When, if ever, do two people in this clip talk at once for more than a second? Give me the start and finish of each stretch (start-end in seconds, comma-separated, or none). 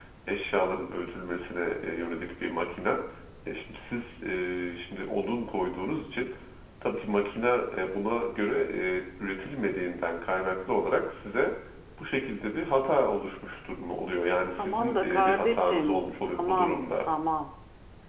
14.6-16.9